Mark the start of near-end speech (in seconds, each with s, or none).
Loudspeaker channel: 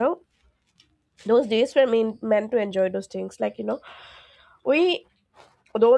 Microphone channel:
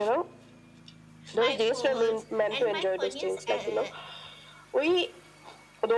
1.3 s